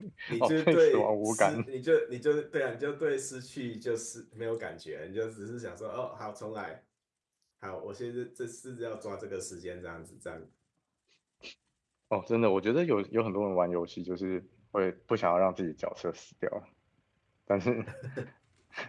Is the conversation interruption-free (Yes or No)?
No